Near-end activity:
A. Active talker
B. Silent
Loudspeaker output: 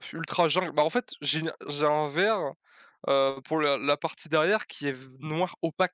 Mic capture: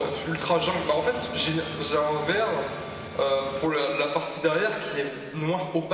B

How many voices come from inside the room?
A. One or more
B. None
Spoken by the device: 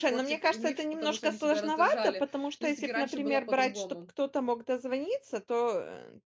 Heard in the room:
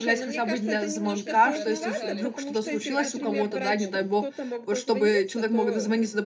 A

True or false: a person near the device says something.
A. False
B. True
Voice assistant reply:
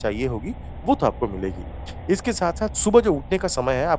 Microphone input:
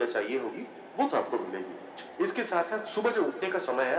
A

